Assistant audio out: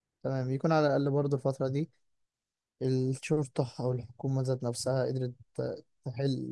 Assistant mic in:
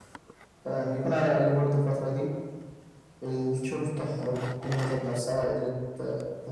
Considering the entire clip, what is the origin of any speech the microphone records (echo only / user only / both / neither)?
echo only